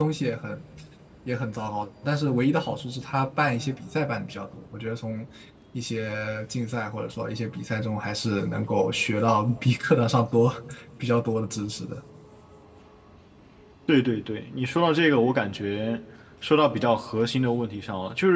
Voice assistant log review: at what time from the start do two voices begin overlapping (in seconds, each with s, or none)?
none